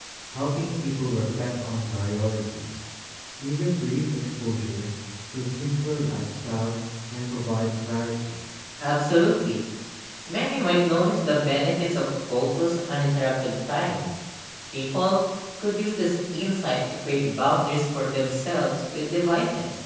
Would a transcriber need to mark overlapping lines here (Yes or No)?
No